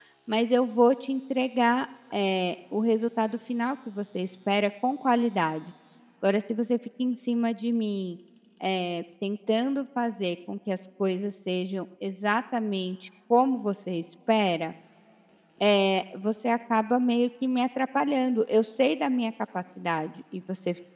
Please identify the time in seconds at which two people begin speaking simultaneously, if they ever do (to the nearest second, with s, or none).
none